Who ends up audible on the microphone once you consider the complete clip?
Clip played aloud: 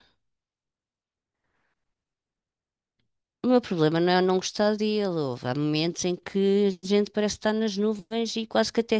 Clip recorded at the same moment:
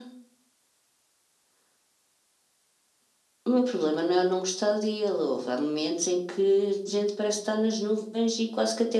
echo only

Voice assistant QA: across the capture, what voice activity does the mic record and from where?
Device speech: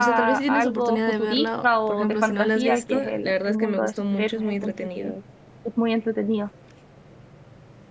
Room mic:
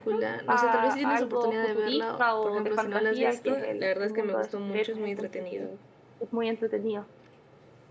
echo only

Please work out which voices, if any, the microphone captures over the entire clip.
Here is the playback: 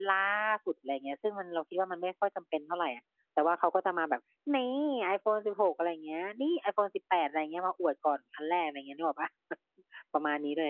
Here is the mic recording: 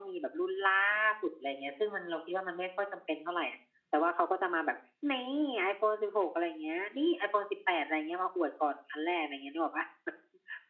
echo only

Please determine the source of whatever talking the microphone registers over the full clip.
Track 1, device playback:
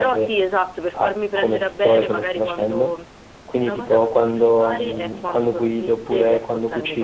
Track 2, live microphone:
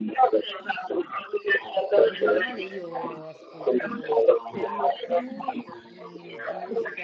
both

